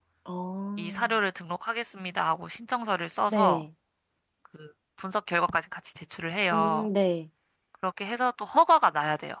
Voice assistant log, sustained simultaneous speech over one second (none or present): none